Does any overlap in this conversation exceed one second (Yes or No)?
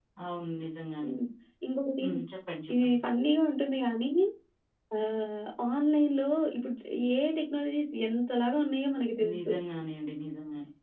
No